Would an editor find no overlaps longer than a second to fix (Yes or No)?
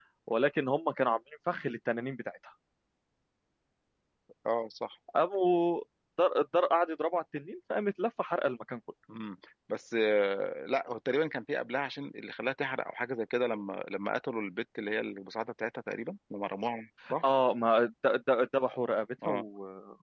Yes